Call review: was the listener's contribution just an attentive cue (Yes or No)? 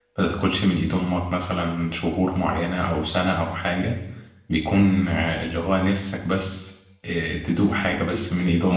No